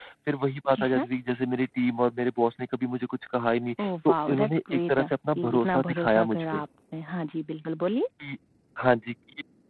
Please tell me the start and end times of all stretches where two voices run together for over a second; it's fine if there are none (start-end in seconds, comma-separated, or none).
3.8-6.6